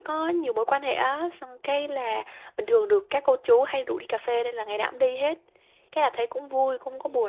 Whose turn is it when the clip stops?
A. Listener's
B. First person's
B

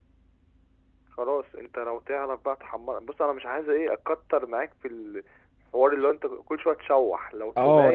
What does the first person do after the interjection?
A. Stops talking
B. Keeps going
A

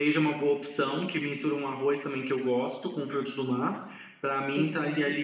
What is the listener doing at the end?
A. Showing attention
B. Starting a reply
A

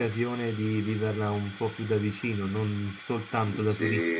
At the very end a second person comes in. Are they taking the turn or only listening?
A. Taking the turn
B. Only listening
A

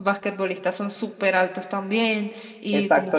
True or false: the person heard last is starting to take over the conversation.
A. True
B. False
A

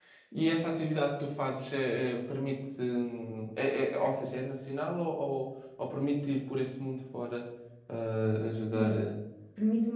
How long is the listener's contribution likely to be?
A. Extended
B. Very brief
A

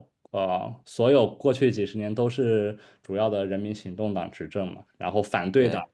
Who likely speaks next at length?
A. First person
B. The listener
A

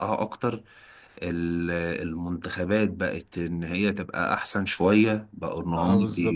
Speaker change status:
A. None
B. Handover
B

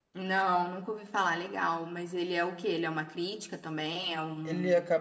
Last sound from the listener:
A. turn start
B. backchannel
A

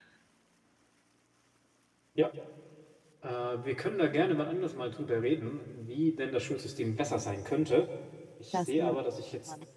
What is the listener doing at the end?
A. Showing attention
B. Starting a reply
A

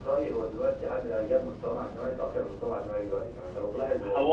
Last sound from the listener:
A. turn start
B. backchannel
A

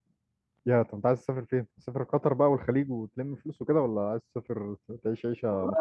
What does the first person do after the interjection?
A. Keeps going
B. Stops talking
B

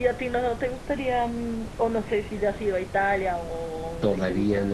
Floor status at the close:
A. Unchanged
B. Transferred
B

